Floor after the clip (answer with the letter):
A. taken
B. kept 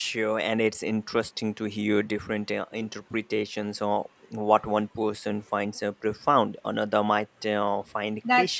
A